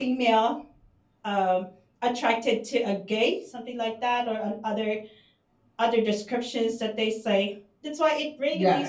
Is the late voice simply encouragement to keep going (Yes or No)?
No